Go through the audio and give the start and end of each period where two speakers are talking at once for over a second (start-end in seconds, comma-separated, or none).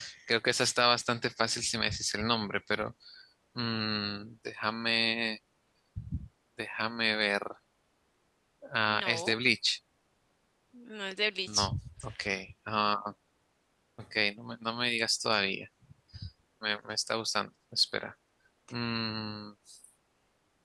none